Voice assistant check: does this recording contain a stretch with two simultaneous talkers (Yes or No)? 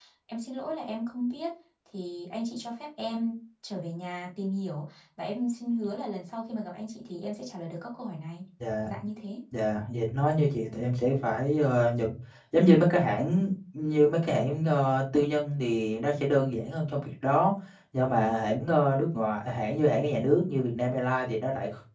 No